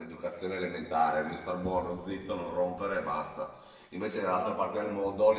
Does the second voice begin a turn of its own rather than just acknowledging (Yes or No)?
No